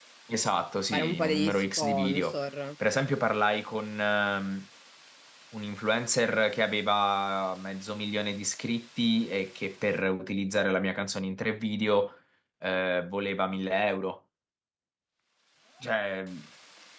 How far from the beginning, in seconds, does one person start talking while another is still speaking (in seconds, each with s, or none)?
0.9 s